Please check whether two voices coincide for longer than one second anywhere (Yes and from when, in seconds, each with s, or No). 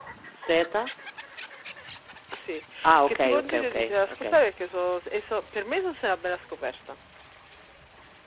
Yes, from 3.1 s